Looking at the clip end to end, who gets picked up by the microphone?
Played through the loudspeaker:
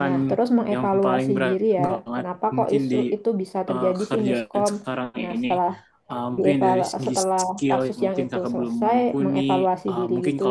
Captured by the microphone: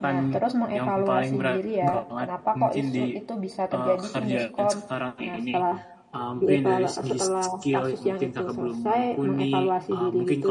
echo only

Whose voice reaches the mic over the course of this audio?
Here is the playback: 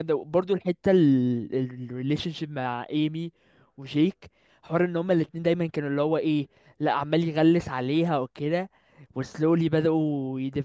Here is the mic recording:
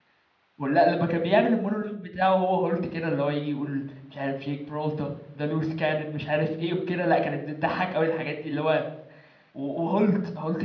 user only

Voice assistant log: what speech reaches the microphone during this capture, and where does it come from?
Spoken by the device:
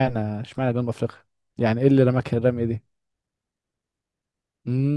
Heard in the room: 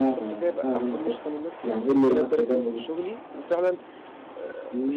both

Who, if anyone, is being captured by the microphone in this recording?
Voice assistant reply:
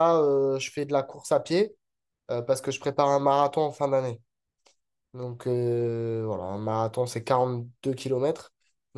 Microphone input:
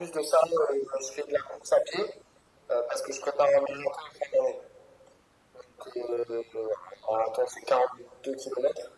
echo only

